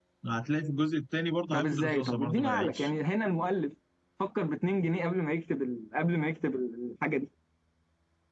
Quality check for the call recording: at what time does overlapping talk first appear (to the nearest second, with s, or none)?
2 s